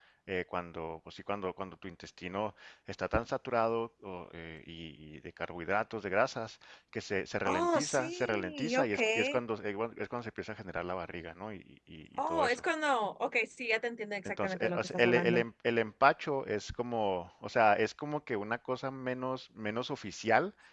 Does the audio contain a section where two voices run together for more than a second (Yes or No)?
Yes